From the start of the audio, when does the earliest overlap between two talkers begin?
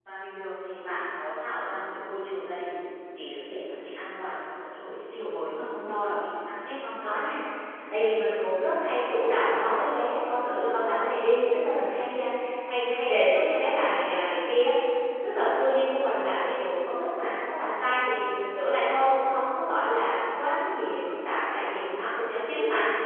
none

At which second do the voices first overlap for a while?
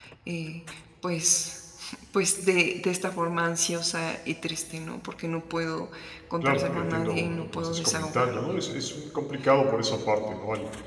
6.4 s

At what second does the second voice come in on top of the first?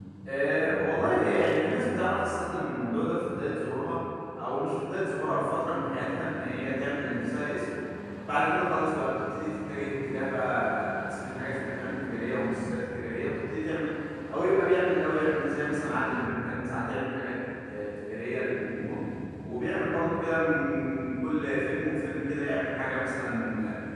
none

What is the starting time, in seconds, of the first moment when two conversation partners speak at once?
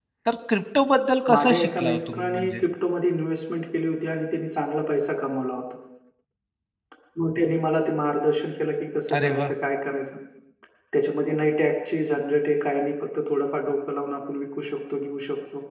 1.3 s

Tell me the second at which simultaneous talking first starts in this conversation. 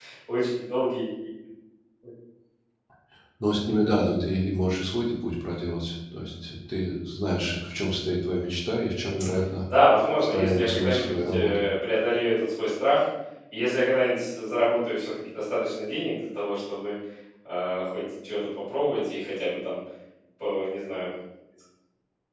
10.2 s

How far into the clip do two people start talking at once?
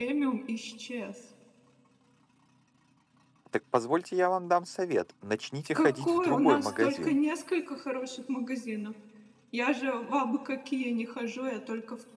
5.8 s

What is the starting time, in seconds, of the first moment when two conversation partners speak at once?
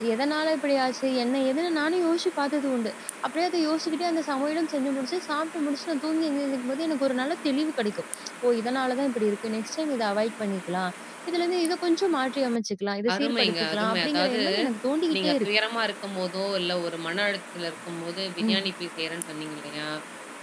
13.1 s

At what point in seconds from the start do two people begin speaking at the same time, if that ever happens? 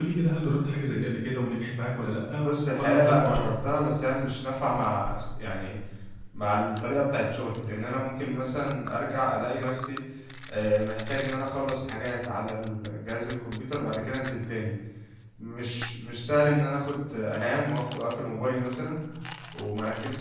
2.4 s

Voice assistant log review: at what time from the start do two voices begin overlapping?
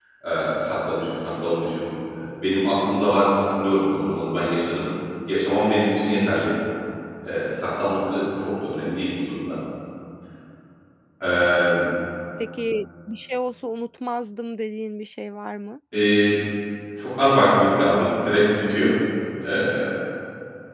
none

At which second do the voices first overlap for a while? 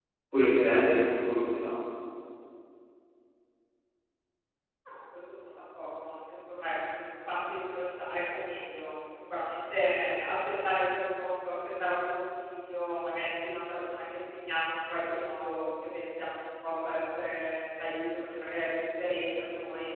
none

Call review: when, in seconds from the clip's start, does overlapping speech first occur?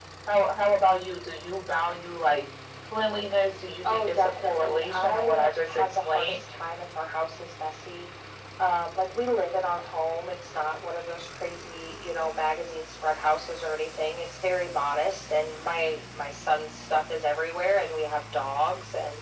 3.8 s

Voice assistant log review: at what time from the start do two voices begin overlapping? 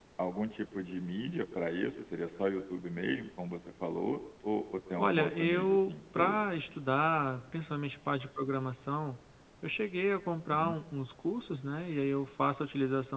5.0 s

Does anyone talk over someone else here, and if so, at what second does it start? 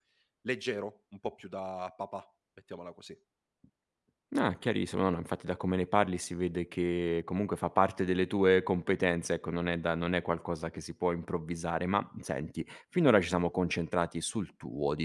none

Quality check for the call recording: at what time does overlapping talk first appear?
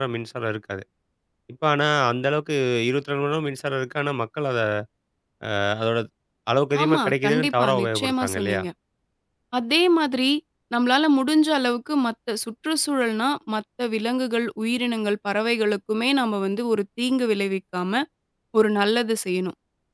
6.8 s

